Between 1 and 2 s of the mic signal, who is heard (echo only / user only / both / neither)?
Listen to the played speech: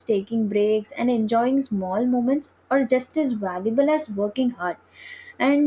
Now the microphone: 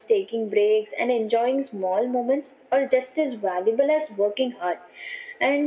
echo only